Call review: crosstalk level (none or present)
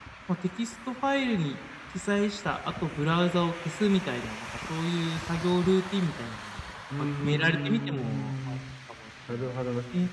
present